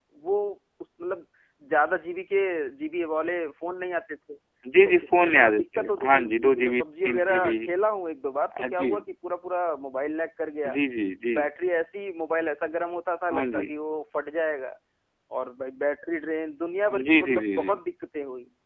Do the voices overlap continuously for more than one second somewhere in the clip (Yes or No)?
Yes